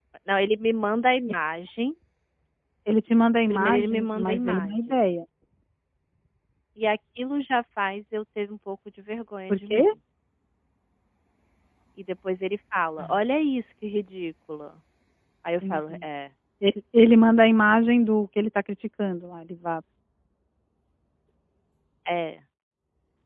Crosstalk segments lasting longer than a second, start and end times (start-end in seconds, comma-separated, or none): 3.5-5.0